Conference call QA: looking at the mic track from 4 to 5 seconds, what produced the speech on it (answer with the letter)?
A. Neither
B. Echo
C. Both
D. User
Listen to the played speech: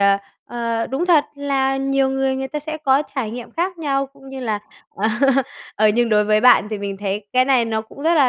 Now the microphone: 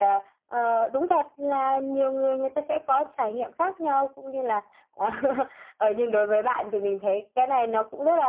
B